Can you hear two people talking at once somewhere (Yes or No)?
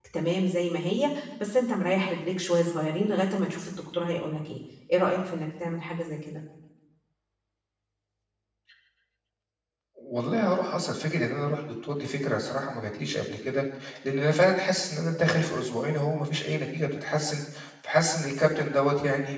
No